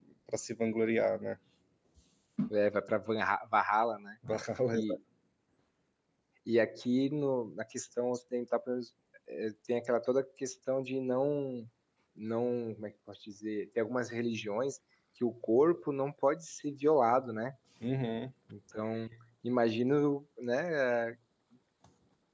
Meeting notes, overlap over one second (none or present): none